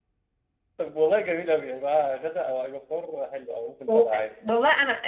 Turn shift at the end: Yes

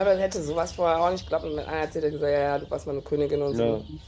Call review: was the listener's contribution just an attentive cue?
Yes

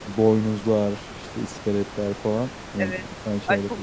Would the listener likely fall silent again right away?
No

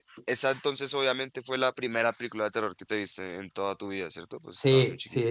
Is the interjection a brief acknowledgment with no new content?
No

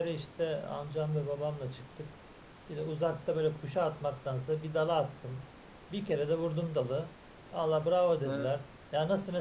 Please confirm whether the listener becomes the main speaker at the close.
No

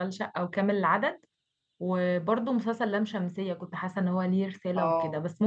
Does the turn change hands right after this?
No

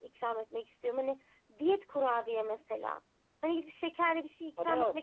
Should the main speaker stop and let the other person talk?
Yes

